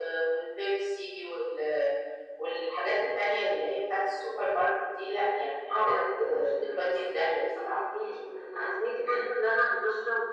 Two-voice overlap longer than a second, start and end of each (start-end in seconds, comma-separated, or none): 5.7-7.8